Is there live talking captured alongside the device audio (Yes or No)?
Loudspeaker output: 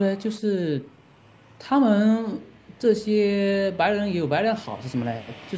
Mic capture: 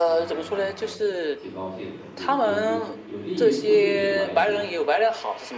Yes